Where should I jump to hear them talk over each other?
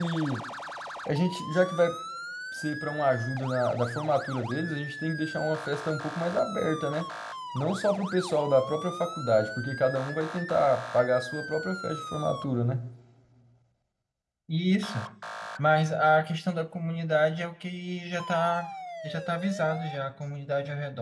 none

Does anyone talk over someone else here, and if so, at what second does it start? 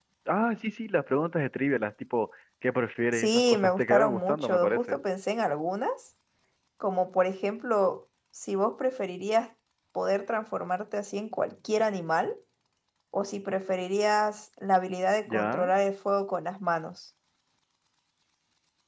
3.1 s

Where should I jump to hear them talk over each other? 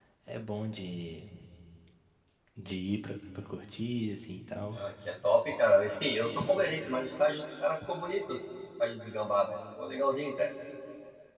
none

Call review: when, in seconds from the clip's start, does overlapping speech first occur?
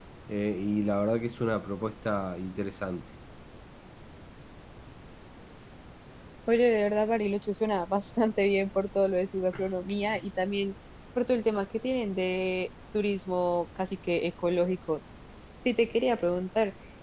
none

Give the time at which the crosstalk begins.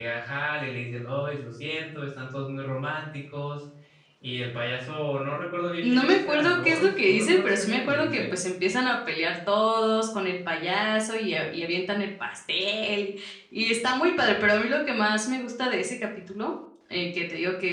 5.8 s

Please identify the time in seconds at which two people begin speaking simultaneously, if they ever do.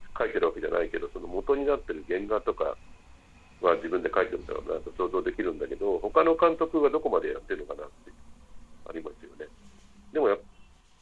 none

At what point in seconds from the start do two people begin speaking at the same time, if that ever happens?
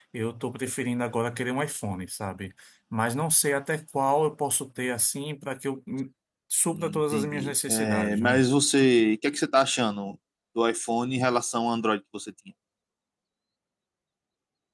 6.7 s

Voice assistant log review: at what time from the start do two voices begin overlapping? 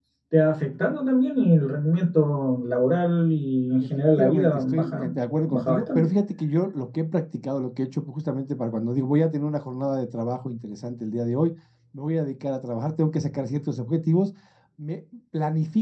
3.8 s

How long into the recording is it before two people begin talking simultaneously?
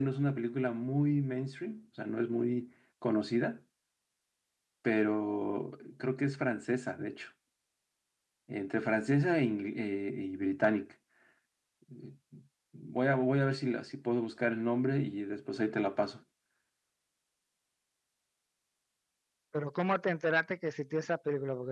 none

